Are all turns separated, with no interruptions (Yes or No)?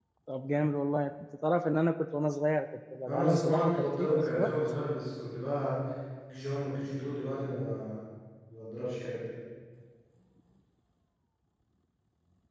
No